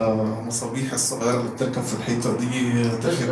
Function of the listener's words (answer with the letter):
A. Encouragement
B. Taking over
A